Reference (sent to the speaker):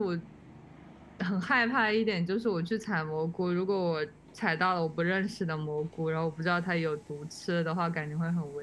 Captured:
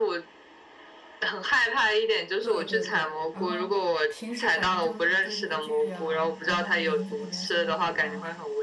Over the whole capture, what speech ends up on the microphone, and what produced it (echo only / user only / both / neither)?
both